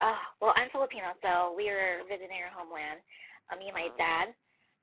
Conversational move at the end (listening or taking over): listening